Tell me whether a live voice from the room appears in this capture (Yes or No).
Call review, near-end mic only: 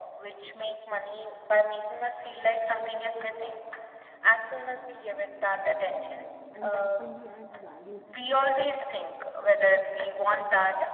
Yes